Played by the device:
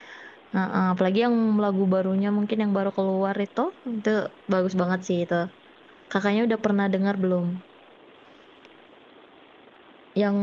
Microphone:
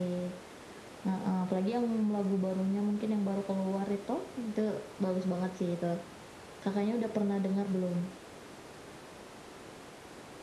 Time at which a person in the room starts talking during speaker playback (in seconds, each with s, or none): none